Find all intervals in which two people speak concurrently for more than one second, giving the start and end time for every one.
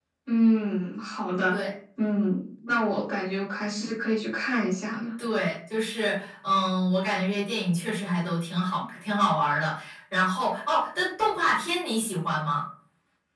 none

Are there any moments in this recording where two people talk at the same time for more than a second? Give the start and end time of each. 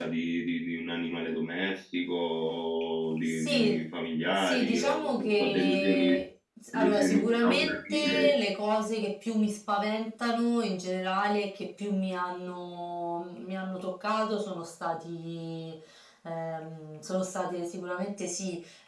4.3-6.2, 6.7-8.3

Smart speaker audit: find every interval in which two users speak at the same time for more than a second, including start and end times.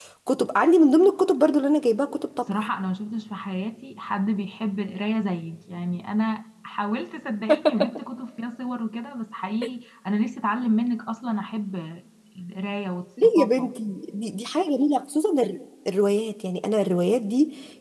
none

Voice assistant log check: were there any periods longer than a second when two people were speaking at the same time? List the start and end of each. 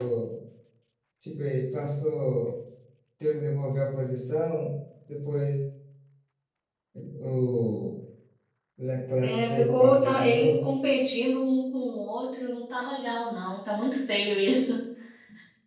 9.2-10.7

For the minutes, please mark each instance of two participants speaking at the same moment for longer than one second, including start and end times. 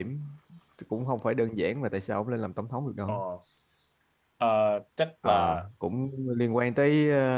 none

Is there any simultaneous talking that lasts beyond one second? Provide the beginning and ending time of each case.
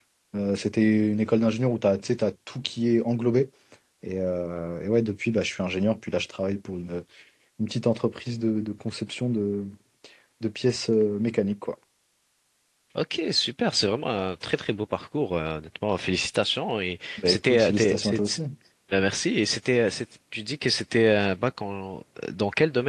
17.2-18.4

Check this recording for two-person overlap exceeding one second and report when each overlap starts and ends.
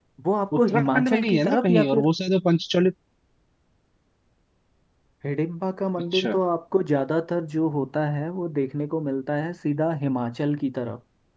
0.6-2.0

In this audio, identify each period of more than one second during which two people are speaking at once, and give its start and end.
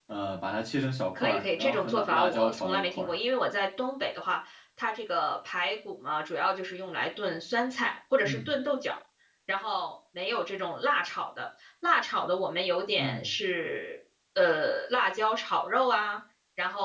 1.1-3.1

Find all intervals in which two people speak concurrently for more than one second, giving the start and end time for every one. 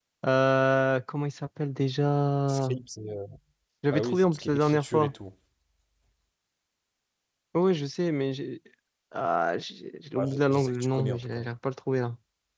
3.9-5.1, 10.2-11.5

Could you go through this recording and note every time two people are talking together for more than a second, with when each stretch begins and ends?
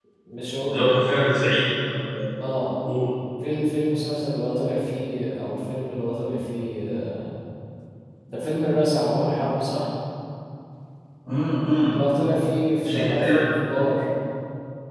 none

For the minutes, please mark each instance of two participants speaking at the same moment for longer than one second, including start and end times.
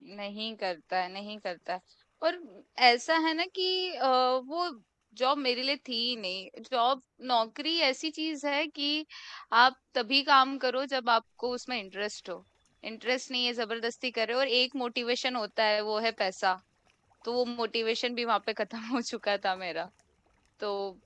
none

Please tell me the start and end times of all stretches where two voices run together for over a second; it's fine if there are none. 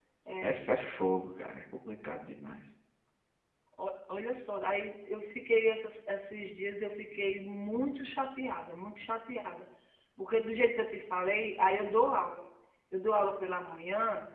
none

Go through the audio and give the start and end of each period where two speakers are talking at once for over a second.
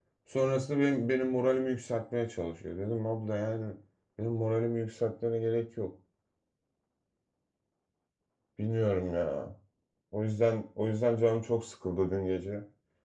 none

